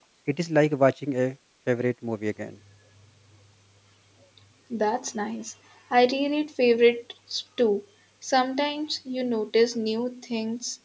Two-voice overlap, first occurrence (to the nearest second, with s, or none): none